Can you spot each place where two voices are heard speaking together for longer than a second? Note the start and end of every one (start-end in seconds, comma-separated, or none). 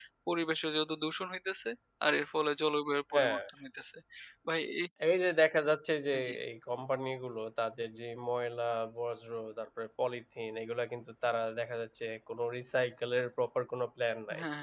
none